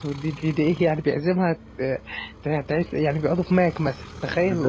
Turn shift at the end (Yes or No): Yes